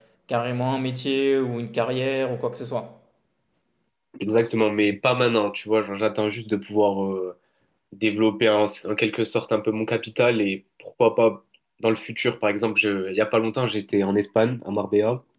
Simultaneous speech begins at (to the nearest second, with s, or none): none